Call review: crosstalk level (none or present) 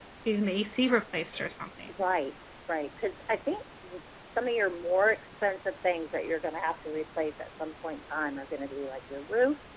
none